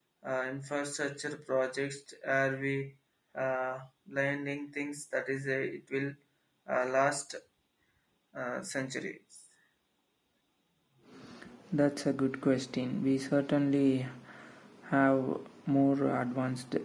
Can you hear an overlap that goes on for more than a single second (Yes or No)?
No